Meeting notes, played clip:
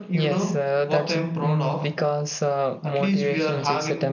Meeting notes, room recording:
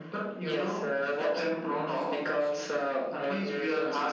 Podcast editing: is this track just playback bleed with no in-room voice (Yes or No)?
No